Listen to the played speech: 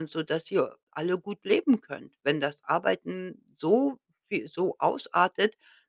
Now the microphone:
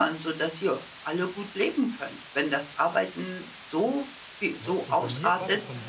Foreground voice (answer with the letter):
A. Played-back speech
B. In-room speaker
A